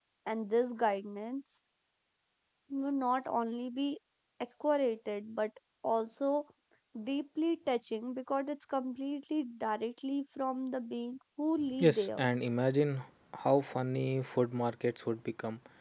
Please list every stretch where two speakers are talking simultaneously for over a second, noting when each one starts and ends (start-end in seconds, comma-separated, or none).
none